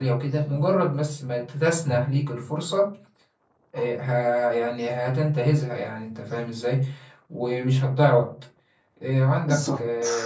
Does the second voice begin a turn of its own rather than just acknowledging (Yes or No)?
No